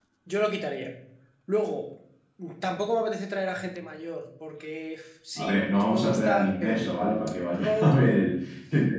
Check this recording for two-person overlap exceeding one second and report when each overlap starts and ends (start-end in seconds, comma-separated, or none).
5.4-6.8